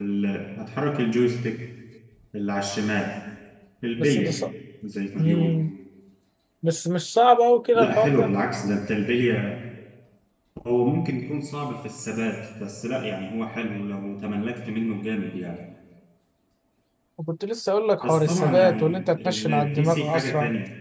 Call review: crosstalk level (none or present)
present